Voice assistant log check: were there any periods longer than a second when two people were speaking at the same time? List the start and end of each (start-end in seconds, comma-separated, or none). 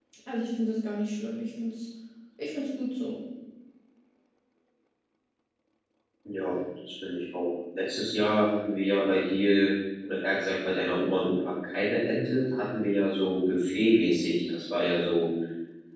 none